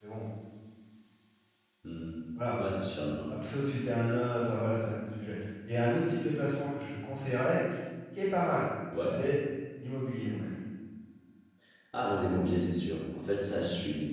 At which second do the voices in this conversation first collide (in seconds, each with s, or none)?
none